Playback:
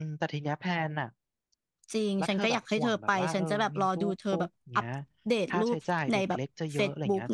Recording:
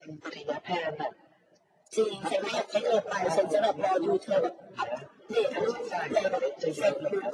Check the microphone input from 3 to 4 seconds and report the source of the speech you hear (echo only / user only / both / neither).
echo only